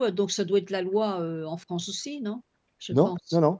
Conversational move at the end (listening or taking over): taking over